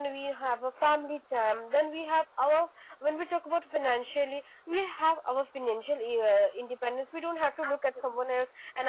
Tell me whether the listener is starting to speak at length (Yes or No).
No